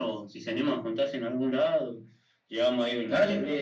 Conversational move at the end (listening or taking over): listening